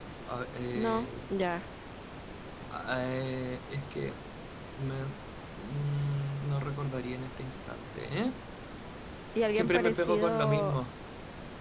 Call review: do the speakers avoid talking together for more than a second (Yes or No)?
No